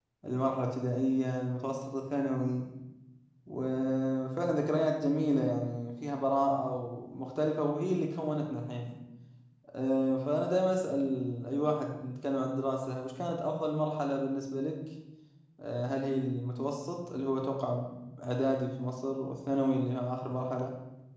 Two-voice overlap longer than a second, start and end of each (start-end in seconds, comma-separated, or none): none